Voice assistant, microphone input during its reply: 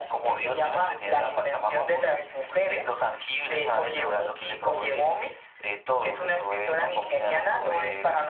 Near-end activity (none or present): none